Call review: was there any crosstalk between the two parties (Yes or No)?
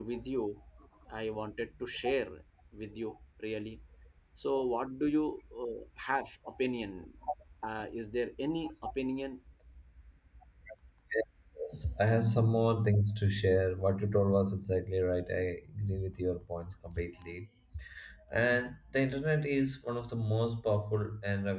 No